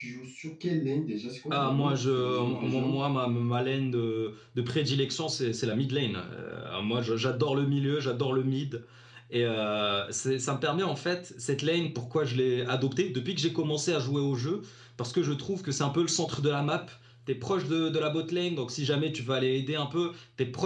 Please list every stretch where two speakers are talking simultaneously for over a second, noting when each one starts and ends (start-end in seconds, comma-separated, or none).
1.5-2.9